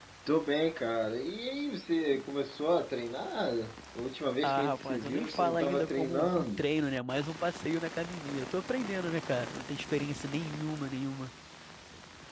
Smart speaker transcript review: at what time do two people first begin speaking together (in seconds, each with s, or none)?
4.4 s